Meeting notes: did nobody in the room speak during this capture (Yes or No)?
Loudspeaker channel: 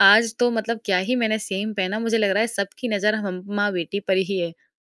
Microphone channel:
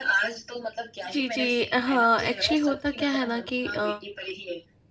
No